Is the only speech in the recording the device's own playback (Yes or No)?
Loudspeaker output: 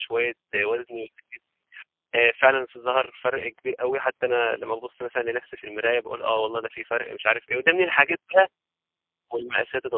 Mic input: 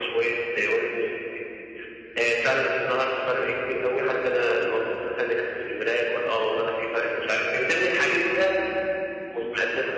Yes